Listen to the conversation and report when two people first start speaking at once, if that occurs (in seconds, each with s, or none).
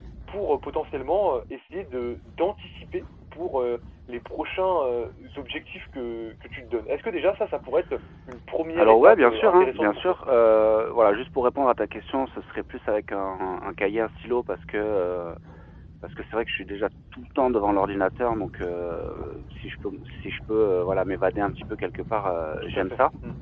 8.8 s